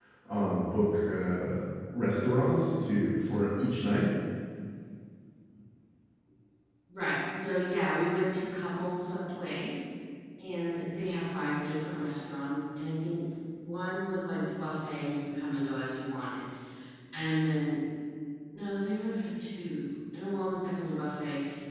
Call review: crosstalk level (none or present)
none